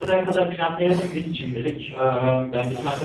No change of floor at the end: Yes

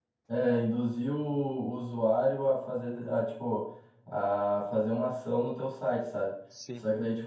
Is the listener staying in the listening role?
Yes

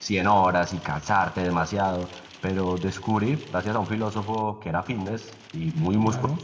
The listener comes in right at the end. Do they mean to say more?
No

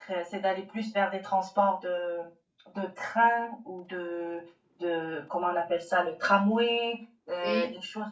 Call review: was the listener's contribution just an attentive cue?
Yes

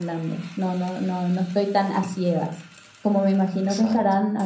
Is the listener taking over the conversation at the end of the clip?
No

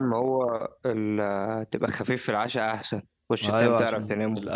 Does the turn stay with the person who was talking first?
No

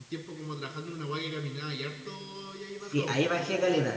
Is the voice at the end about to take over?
Yes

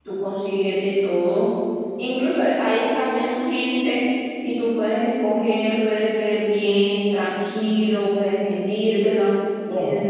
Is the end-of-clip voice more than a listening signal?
No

